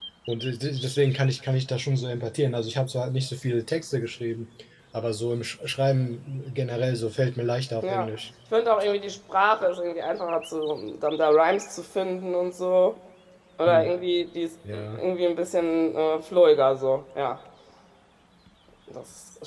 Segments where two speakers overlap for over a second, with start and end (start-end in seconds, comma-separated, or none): none